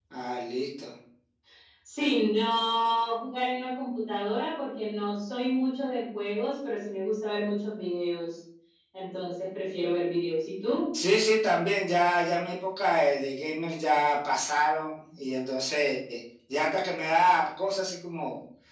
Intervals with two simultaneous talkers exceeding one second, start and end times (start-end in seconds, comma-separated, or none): none